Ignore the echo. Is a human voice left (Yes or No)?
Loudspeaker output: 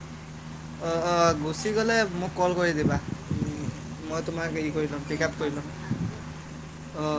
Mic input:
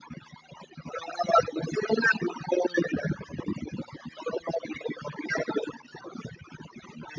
No